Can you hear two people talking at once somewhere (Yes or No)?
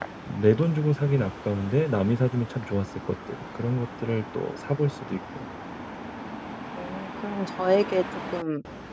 No